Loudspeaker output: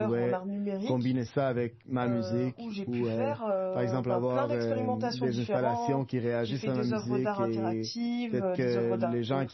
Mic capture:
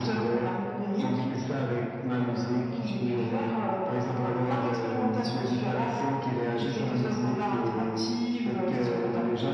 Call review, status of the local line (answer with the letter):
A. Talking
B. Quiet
B